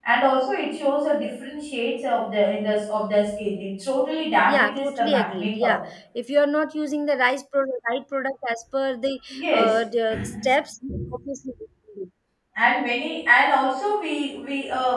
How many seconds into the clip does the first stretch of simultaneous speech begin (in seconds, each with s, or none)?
4.5 s